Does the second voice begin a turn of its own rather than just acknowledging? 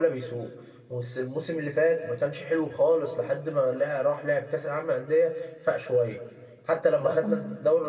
No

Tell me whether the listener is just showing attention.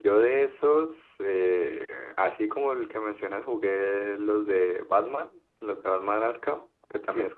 Yes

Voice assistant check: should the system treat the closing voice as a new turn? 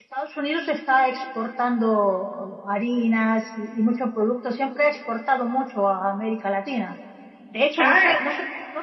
No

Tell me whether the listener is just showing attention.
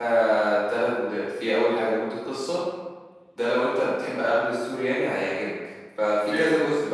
Yes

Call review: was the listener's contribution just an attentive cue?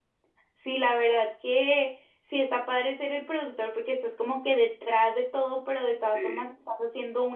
Yes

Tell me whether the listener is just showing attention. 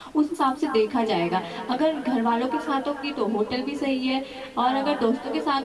Yes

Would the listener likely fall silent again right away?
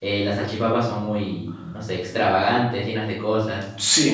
No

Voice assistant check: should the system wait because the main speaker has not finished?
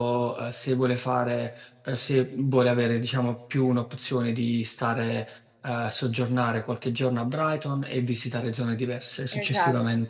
No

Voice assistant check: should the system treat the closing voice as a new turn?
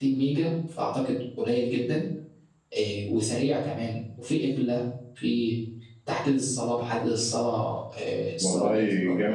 Yes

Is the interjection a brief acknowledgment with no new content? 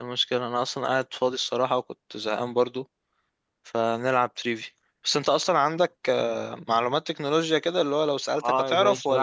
No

